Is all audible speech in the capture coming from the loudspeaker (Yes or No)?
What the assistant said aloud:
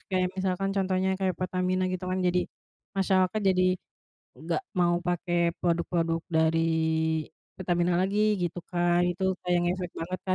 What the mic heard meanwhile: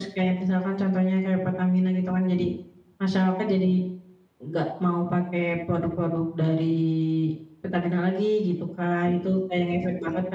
Yes